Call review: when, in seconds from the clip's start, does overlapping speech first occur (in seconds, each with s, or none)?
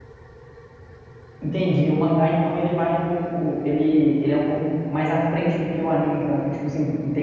none